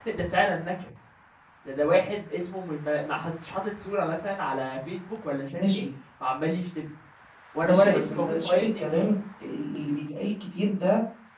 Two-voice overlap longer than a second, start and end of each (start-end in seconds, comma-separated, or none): 7.6-9.1